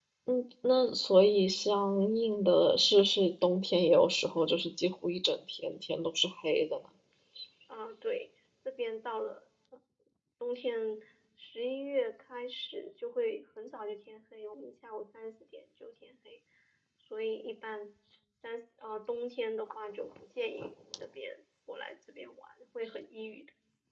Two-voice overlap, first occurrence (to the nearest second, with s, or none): none